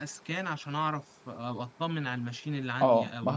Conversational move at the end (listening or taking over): taking over